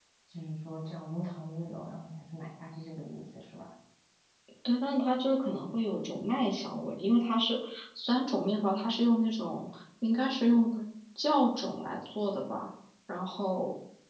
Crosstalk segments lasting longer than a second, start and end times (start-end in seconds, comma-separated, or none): none